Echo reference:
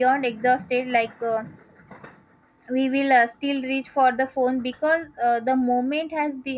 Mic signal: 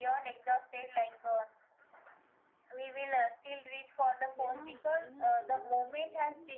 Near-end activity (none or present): present